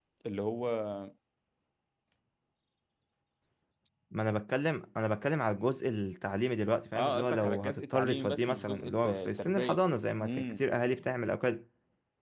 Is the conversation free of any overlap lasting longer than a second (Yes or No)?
No